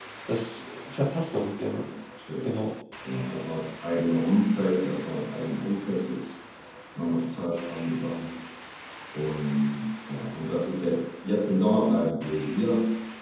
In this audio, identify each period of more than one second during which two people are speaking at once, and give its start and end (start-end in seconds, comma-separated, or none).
none